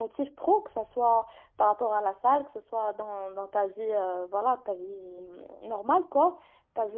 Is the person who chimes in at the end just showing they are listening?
Yes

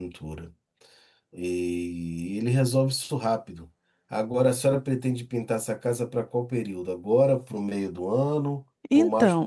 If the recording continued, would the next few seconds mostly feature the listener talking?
Yes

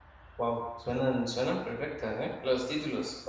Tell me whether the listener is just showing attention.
No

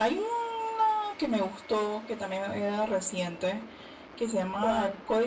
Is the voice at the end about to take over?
No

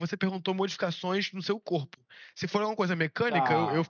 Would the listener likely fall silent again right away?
Yes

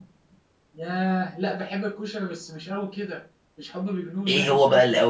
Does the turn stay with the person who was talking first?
No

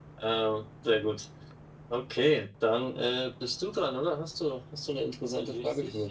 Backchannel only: No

